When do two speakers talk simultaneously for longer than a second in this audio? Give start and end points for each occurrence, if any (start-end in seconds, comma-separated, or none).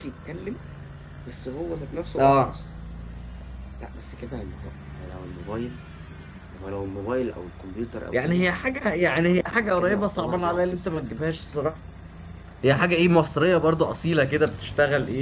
9.3-10.9